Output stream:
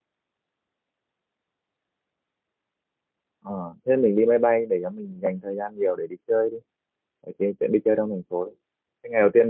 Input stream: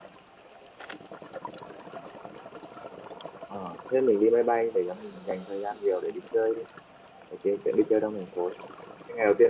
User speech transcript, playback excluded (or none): none